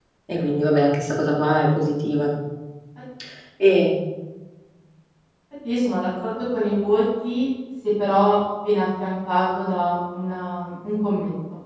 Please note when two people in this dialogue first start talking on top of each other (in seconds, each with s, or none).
none